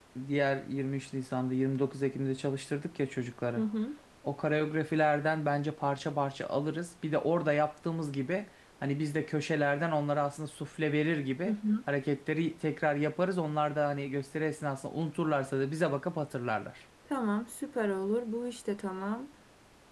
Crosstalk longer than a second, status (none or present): none